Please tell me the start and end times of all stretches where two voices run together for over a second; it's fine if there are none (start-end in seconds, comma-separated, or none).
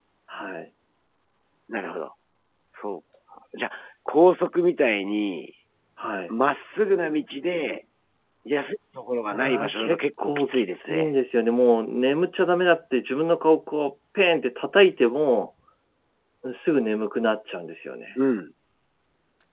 9.3-11.1